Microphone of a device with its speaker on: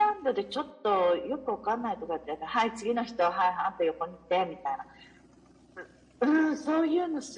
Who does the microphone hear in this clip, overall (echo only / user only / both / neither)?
echo only